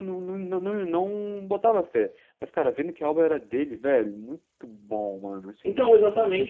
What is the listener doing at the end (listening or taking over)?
taking over